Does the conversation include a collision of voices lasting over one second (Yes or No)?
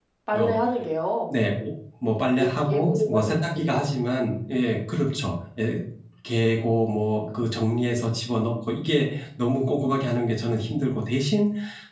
Yes